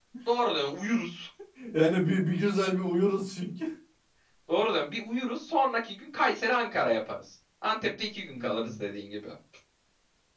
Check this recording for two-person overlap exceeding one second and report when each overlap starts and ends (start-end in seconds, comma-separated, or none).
none